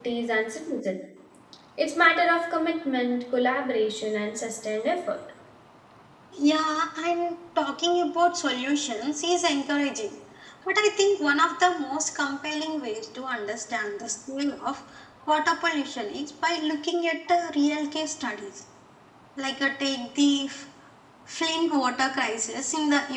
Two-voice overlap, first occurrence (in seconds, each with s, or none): none